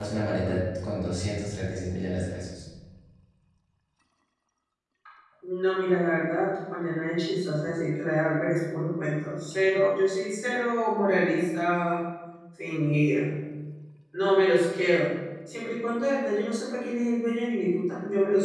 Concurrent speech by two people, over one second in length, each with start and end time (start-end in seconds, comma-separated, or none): none